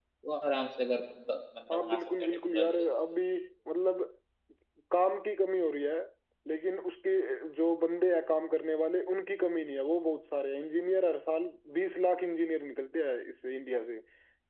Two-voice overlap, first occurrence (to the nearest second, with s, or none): 2 s